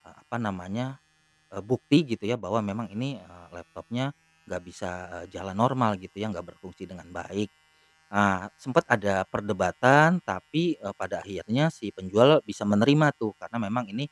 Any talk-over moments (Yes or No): No